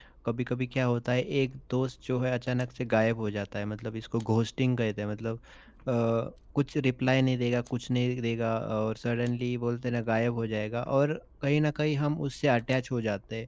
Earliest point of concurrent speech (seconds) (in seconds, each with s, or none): none